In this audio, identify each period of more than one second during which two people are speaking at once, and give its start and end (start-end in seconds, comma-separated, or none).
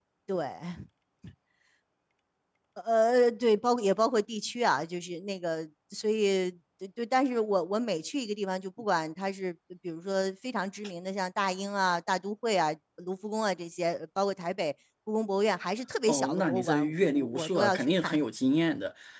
16.1-18.1